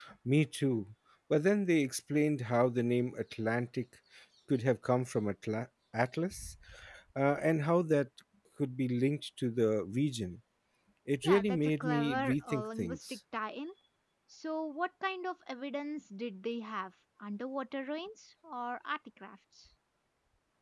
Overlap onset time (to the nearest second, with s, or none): 11 s